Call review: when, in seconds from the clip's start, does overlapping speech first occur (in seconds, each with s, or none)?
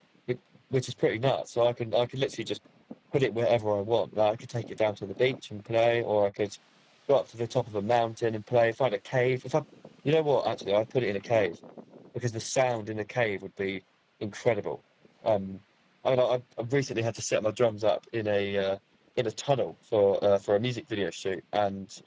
none